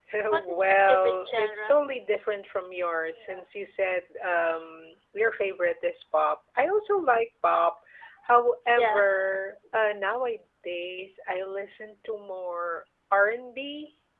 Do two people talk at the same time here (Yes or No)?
Yes